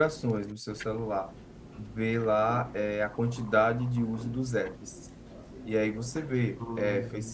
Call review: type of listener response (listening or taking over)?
listening